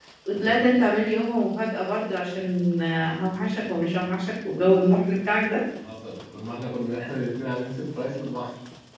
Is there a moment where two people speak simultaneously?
No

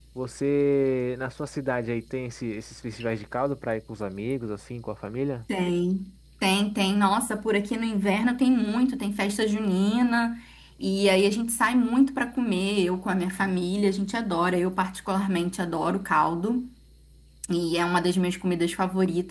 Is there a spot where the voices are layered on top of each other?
No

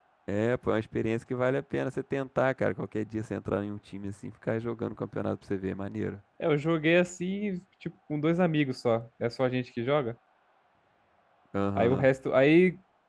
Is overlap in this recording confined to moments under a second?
Yes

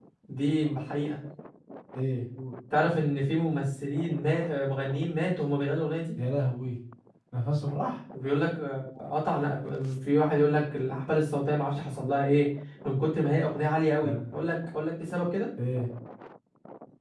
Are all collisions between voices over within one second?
Yes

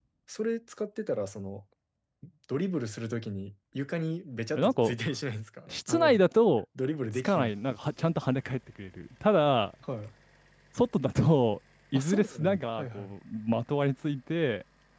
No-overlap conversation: No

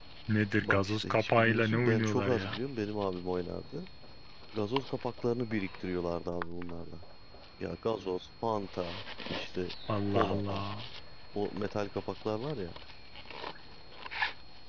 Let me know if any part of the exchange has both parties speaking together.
Yes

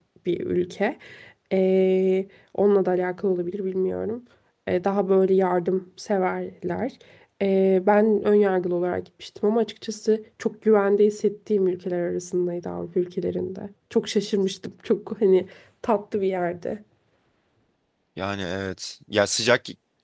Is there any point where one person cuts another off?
No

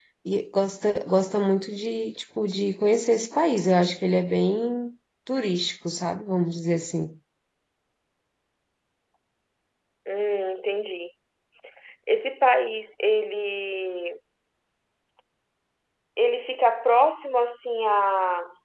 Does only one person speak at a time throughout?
Yes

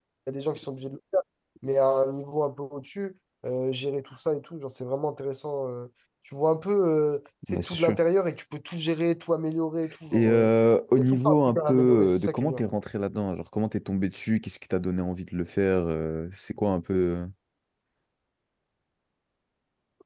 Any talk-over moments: Yes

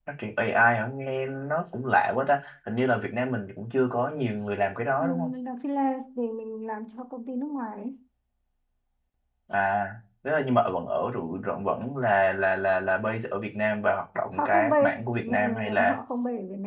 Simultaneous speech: Yes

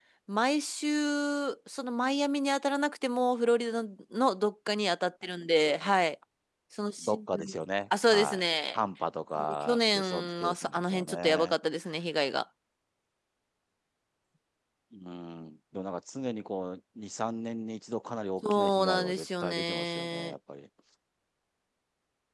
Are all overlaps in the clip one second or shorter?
No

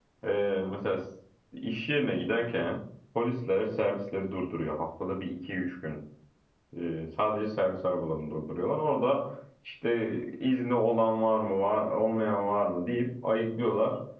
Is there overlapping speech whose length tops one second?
No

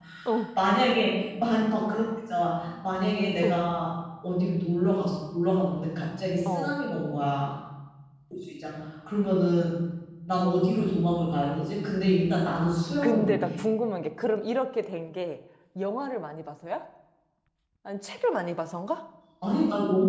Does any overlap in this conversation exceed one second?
No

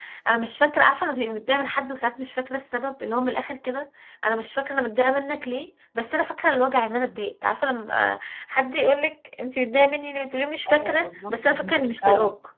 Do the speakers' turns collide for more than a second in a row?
Yes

